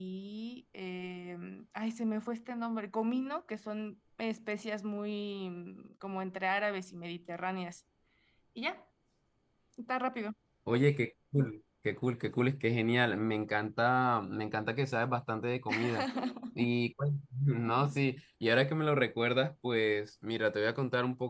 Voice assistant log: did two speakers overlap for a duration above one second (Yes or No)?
No